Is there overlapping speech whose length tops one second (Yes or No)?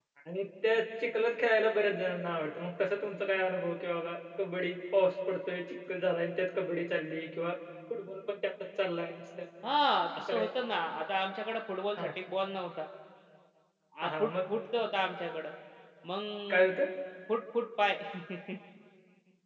No